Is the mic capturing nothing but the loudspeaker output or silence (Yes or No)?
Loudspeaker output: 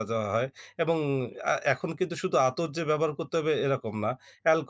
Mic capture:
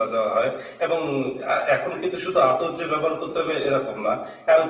Yes